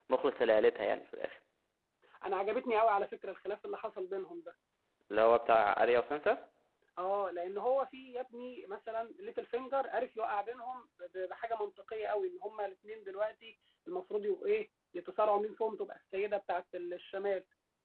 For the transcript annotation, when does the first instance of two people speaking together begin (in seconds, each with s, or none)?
none